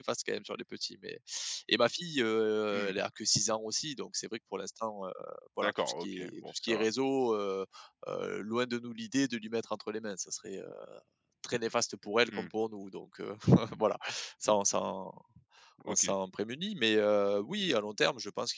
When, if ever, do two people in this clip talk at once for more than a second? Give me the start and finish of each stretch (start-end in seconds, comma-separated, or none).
5.6-6.8